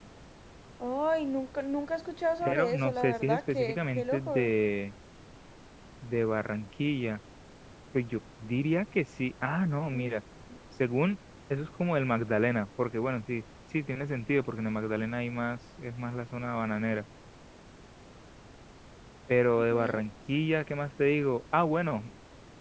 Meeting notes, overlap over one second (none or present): present